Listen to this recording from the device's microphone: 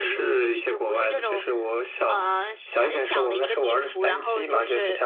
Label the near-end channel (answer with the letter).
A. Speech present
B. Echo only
B